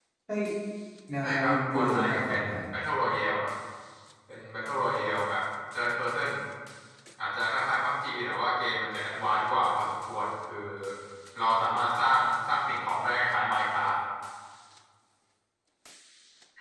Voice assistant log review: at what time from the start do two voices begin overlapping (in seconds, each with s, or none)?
1.2 s